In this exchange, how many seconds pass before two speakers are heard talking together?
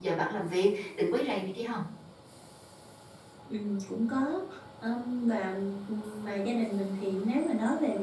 none

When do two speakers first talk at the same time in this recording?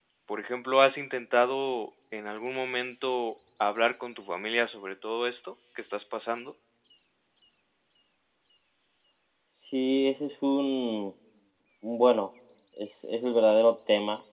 none

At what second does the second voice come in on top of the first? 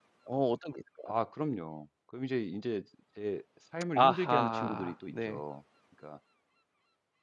4.0 s

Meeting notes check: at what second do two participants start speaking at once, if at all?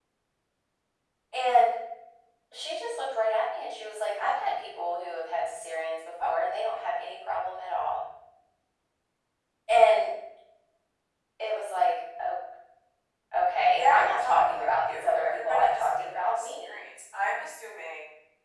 13.7 s

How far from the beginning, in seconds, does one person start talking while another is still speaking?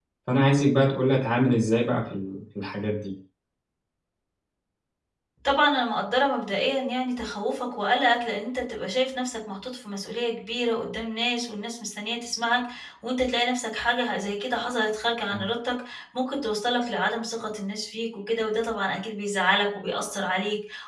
none

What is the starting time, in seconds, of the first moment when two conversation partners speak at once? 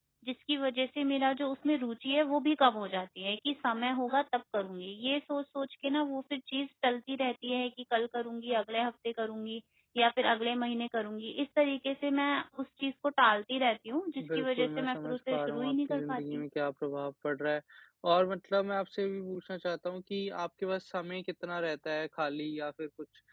14.2 s

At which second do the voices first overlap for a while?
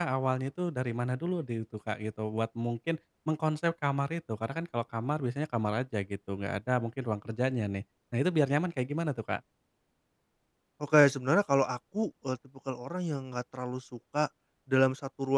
none

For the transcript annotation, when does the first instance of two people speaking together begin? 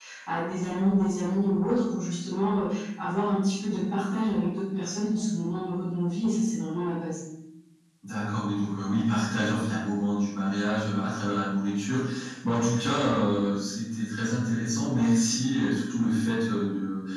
none

